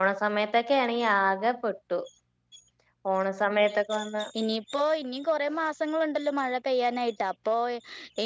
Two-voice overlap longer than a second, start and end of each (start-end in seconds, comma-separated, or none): none